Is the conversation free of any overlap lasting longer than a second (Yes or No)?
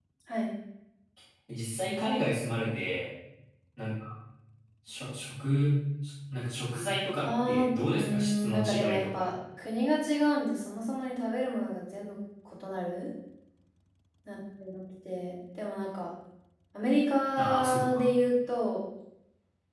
No